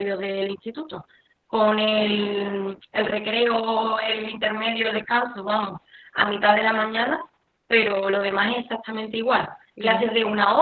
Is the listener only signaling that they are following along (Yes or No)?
Yes